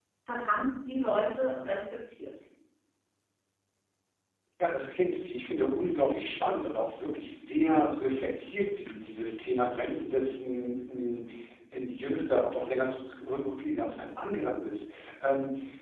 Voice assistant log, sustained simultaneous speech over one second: none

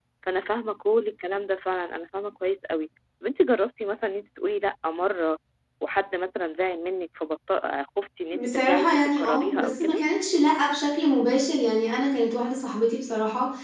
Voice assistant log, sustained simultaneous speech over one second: present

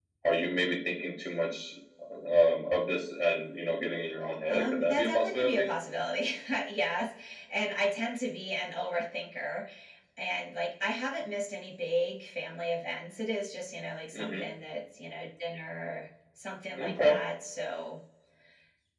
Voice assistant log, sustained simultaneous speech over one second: present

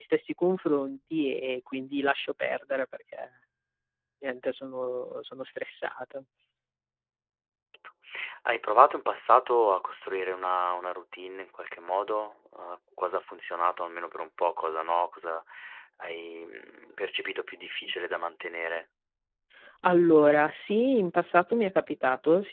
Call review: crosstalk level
none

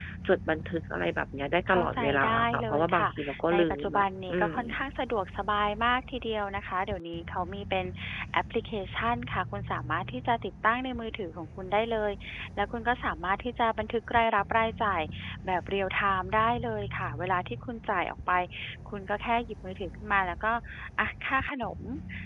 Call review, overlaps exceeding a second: present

